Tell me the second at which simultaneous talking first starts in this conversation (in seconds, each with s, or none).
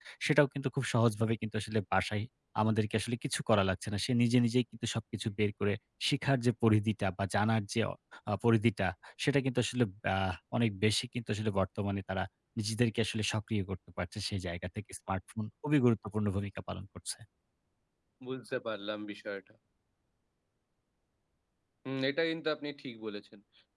none